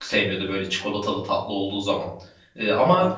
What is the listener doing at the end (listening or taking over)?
listening